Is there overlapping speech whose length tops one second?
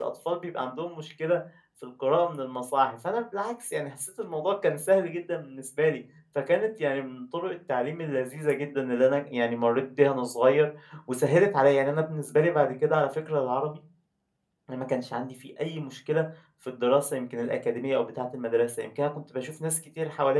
No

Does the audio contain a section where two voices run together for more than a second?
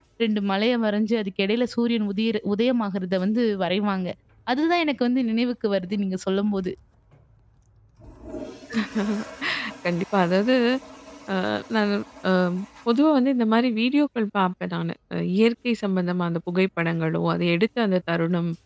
No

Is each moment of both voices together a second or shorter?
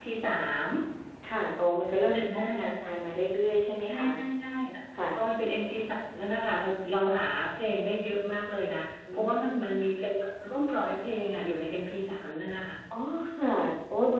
Yes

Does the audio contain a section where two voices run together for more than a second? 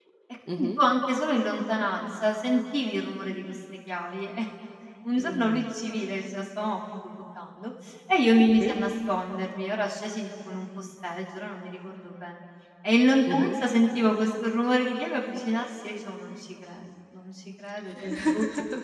No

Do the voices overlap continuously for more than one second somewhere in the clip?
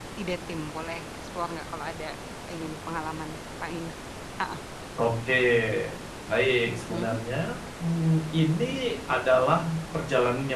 No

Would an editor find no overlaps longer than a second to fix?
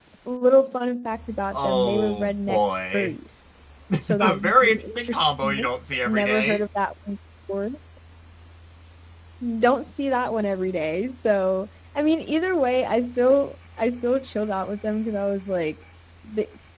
No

